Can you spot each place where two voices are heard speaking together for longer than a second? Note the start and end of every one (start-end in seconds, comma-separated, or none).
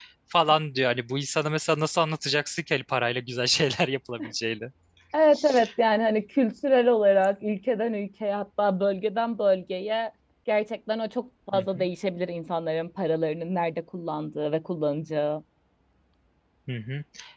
none